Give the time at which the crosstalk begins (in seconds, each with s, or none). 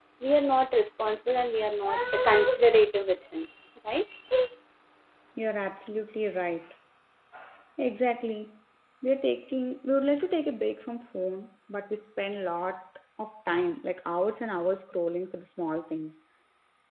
none